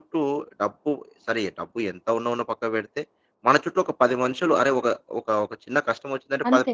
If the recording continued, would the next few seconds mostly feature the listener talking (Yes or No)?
No